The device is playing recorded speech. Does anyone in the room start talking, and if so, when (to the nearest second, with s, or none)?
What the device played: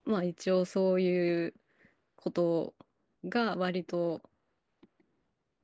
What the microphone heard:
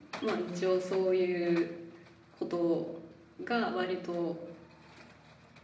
none